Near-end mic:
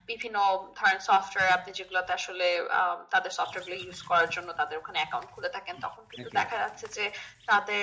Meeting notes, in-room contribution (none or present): present